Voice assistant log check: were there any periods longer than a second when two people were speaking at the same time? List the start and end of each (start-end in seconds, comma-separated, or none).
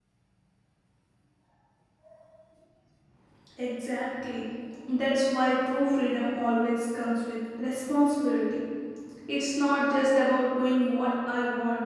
none